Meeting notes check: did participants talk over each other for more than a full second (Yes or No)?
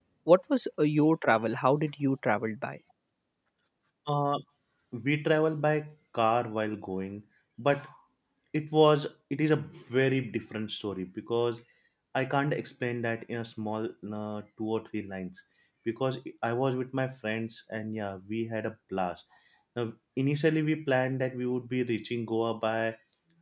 No